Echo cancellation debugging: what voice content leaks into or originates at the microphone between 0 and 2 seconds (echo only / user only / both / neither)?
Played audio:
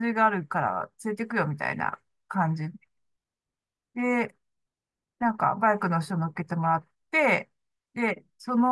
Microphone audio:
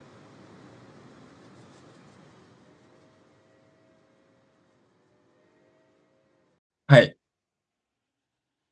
neither